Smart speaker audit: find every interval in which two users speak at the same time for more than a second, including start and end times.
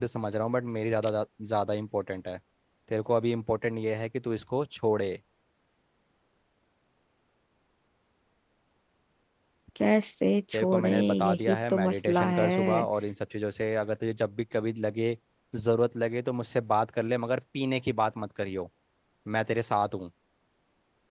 10.5-12.8

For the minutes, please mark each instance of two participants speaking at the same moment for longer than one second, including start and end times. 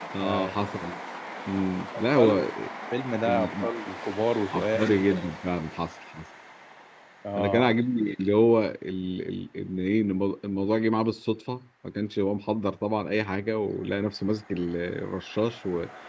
none

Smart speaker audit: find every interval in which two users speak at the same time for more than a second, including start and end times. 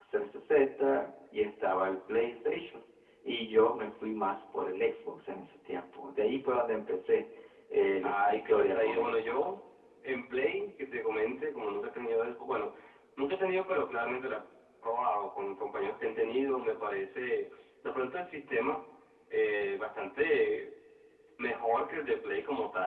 8.0-9.3

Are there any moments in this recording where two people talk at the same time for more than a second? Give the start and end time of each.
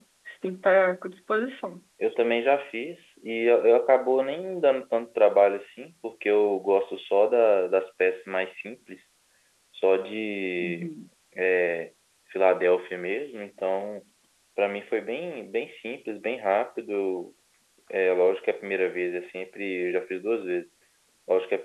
none

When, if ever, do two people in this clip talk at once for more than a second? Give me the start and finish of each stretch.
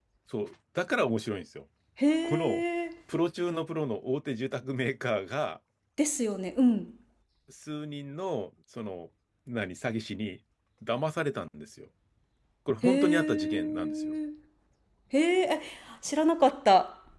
12.8-14.1

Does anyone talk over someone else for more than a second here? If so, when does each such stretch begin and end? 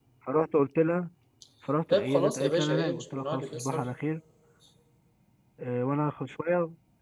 1.9-3.9

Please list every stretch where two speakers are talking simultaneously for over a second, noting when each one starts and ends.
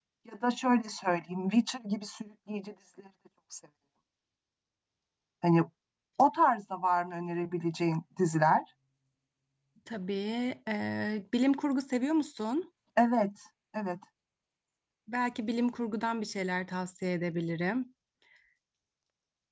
none

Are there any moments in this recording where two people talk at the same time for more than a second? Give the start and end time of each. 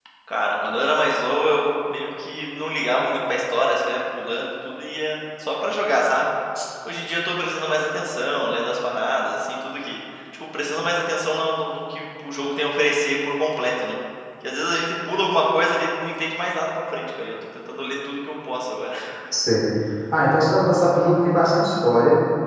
none

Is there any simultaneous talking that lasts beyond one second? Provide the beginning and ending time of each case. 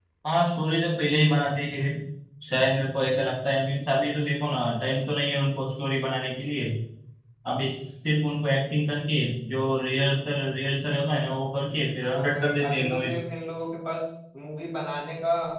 12.0-13.2

